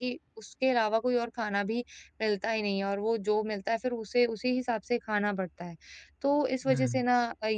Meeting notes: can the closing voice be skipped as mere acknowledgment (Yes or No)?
Yes